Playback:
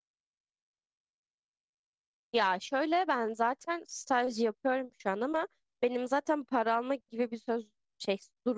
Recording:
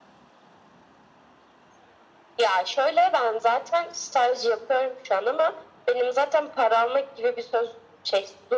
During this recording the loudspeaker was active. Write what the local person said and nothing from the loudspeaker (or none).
none